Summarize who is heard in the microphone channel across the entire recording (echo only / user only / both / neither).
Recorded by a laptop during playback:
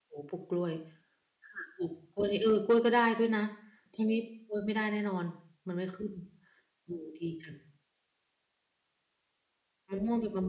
user only